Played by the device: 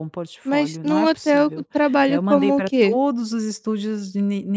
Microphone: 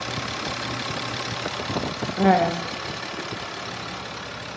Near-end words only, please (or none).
É.